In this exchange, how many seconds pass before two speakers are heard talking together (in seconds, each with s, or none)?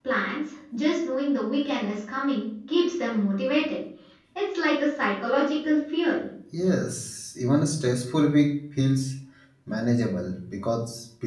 none